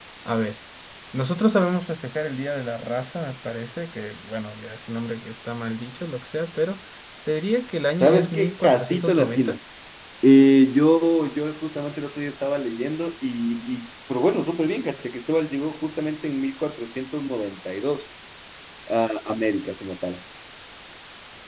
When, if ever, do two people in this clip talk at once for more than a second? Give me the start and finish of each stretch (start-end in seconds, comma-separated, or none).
8.0-9.6